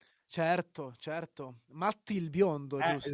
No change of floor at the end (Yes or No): No